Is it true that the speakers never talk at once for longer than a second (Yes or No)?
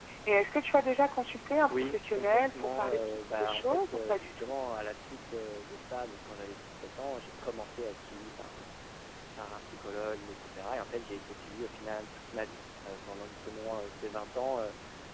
No